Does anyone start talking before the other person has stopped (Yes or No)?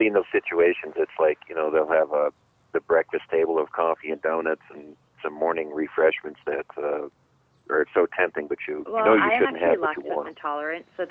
Yes